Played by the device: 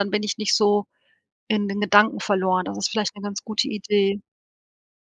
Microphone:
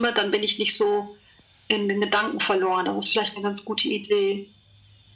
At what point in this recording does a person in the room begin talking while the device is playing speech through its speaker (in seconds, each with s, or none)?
none